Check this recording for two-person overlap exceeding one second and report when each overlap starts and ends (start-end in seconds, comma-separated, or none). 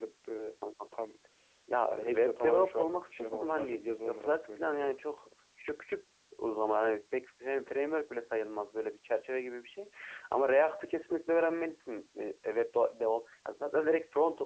1.9-5.0